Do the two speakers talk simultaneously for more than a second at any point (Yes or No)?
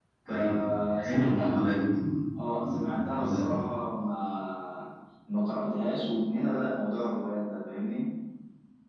Yes